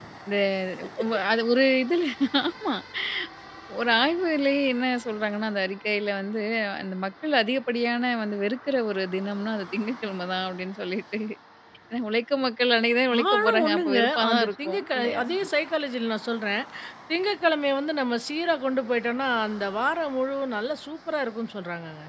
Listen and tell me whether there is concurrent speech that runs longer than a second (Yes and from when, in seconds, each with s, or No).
Yes, from 13.1 s